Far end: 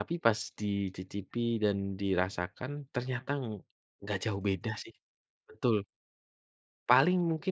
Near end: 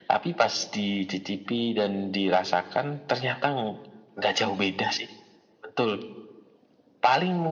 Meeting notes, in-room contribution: present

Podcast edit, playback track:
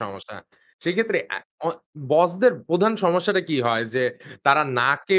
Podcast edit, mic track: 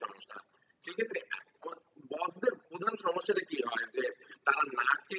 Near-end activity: none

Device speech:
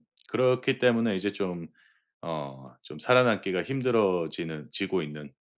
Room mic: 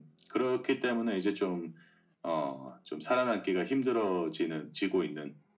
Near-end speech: none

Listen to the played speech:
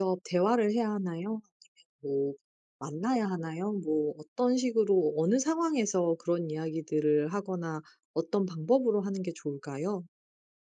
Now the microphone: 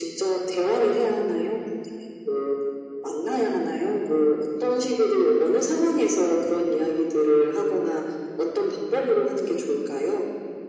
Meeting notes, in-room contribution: none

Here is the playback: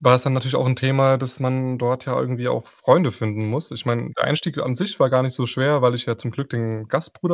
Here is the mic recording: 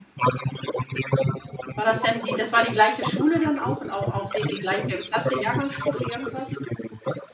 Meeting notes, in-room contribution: present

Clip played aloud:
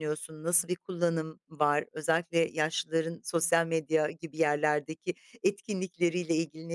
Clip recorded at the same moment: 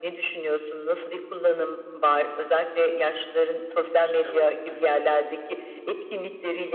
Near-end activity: present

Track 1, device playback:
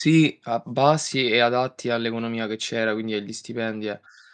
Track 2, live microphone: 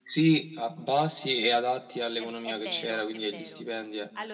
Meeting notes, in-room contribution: present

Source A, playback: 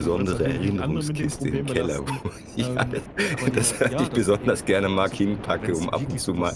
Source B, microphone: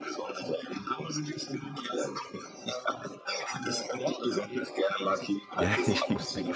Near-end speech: present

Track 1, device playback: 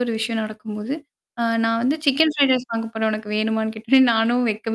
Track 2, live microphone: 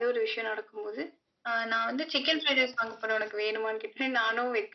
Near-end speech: none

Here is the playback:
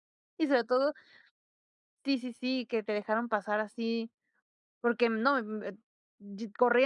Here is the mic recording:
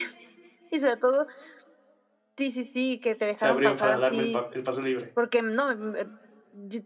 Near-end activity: present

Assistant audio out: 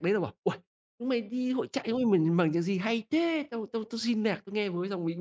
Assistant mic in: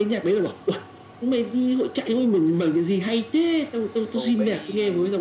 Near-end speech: present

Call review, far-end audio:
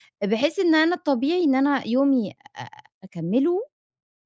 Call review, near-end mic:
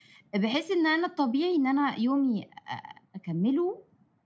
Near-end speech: none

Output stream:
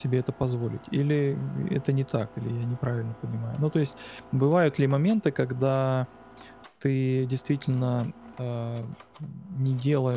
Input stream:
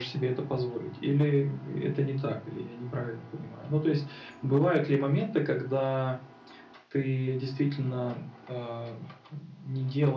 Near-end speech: none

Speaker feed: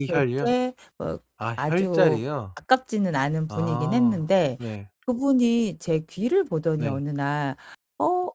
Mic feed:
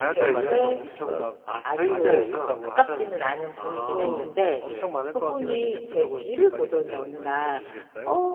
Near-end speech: present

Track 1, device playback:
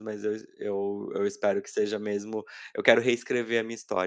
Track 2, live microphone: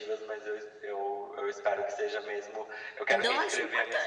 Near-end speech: present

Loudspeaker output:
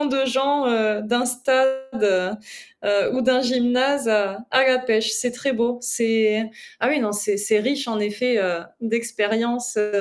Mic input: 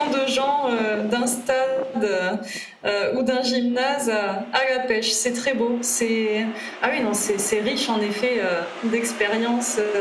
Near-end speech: none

